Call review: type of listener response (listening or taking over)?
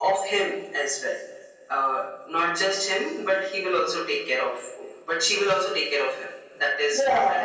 taking over